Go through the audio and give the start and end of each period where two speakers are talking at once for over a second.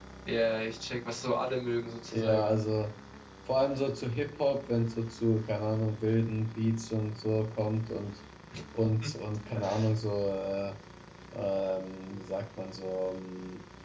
none

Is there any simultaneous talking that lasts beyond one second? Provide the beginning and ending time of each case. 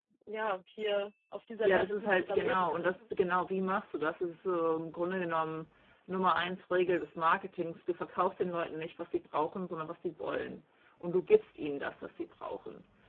1.6-2.9

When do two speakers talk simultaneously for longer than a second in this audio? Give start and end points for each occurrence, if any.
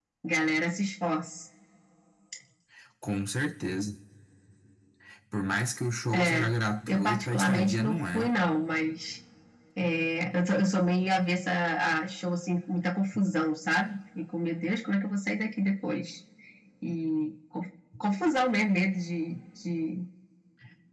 6.9-8.3

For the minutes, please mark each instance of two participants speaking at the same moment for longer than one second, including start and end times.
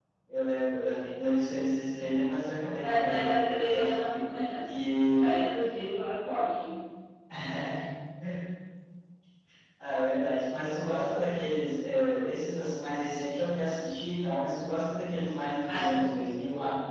2.8-4.2

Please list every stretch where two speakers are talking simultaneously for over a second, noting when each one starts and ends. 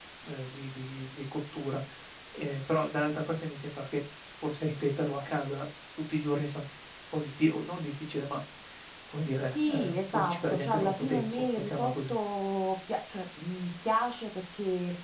9.5-12.2

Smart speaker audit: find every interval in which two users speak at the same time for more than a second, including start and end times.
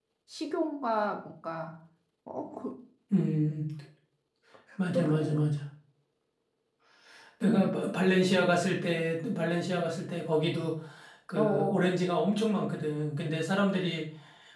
none

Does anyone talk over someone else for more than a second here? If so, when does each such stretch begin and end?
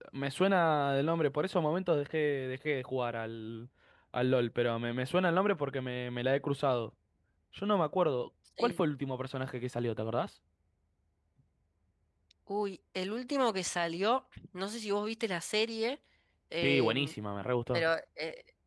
none

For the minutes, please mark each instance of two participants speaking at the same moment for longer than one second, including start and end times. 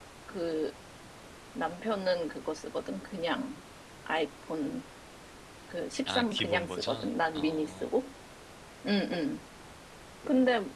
6.1-7.9

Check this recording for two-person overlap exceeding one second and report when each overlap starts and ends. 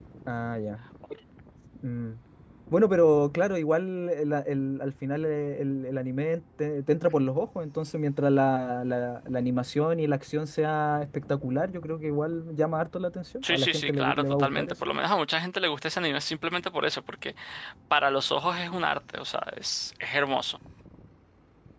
13.4-14.8

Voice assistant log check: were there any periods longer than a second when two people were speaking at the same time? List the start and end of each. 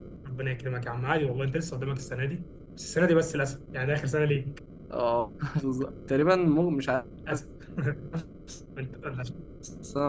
none

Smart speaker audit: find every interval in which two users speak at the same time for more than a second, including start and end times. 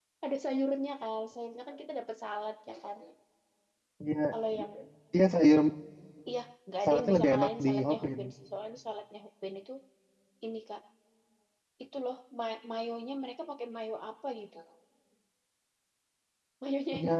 6.9-8.2

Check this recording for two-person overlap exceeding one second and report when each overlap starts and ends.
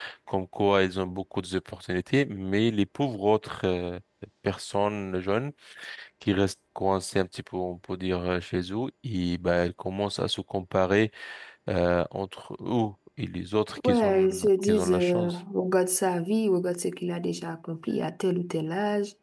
13.8-15.4

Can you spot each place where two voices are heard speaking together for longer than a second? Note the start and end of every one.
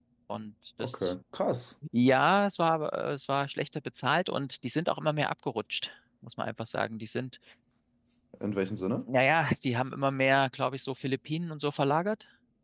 none

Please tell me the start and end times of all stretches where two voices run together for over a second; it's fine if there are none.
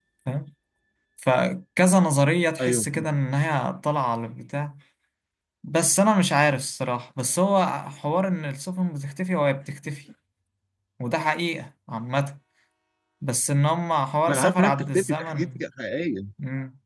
14.3-15.6

